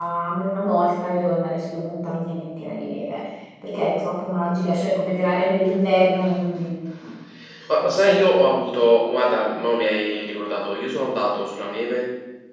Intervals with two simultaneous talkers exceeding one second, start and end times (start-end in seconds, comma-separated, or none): none